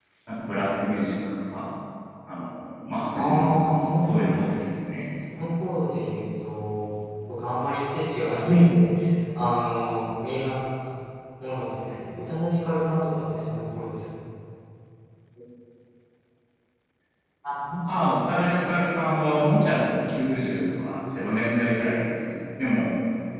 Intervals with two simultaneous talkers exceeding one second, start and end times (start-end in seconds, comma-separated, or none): 3.1-4.6